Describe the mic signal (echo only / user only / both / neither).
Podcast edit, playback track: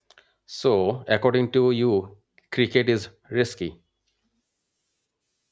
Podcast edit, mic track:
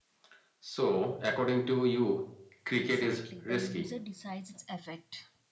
both